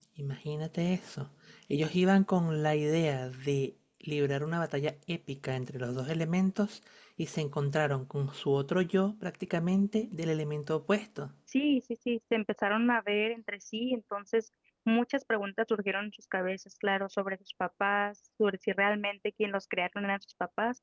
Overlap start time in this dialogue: none

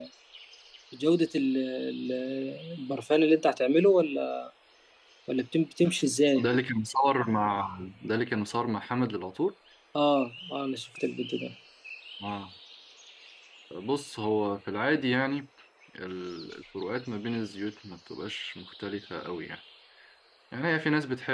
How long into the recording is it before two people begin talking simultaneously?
none

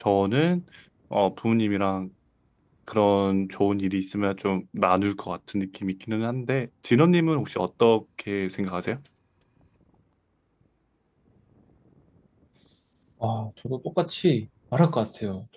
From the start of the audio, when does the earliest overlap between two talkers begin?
none

